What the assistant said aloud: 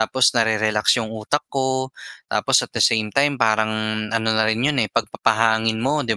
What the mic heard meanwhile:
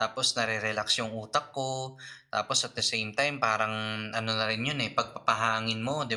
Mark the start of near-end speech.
none

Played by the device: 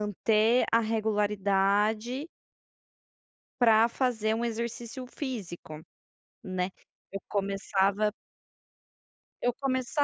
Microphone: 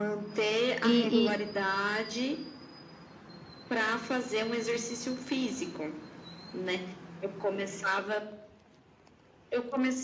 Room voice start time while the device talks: 1 s

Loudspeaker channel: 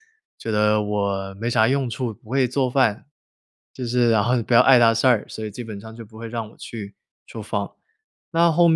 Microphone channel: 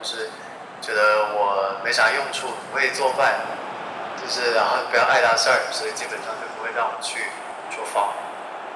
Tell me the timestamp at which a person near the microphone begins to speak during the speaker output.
none

